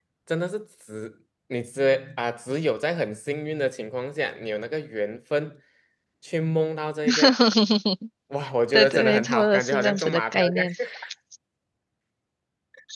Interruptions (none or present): present